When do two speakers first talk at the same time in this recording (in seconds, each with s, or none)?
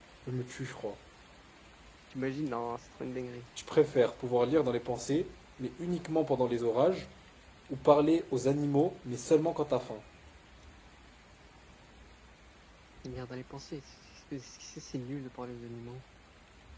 none